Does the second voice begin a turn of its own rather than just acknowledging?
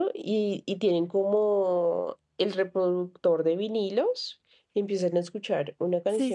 No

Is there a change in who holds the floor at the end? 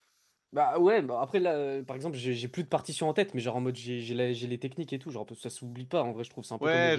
Yes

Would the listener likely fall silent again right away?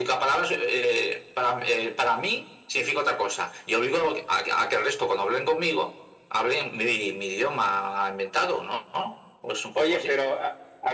No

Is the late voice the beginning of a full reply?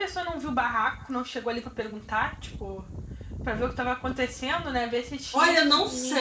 Yes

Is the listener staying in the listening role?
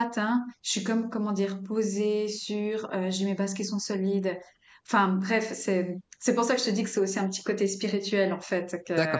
No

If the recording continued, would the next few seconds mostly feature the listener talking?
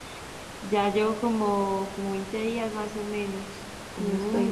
Yes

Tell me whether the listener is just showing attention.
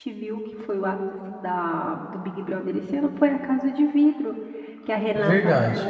Yes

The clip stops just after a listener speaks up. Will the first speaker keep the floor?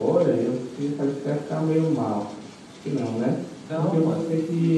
Yes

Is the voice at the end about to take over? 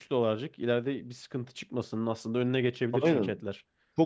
Yes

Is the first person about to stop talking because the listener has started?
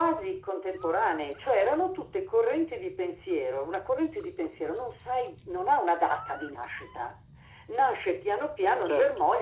No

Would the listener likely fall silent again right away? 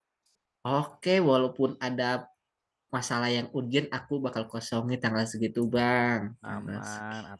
No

